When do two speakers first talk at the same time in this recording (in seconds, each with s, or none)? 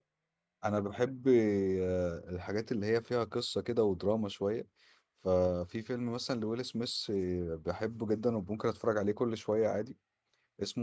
none